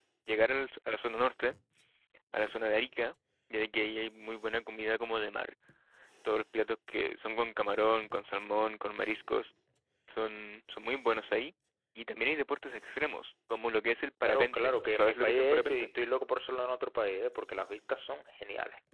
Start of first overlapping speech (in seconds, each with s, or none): 14.2 s